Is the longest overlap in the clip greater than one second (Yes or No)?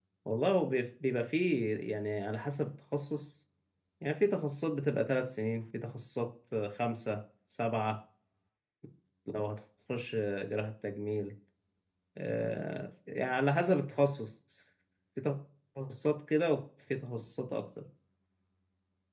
No